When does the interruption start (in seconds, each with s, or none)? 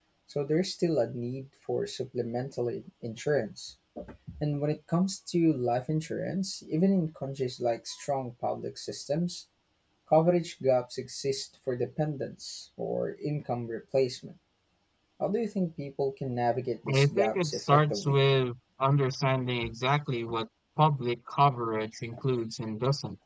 16.9 s